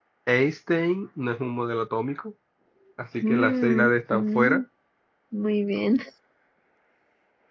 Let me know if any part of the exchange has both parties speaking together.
Yes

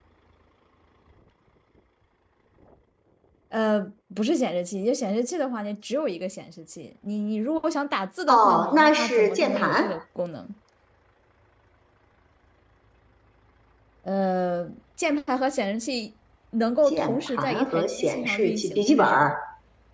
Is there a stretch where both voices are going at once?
Yes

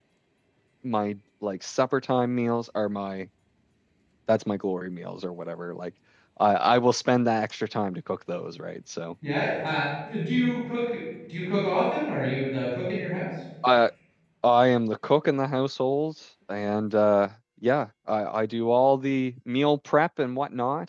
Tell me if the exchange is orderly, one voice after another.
Yes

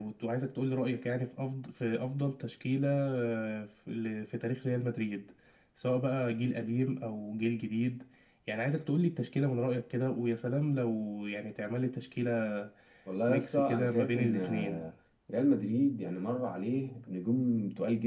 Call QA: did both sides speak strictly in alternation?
No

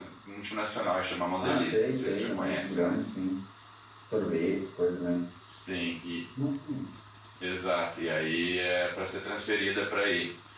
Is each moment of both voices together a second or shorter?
No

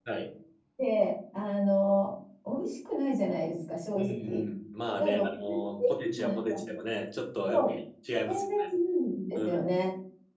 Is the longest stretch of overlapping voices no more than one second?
No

